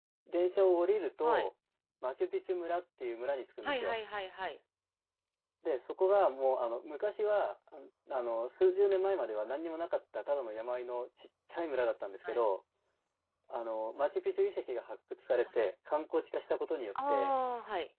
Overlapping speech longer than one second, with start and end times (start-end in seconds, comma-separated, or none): none